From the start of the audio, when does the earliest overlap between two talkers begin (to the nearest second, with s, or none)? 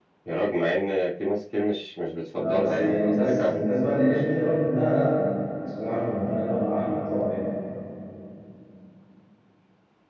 2 s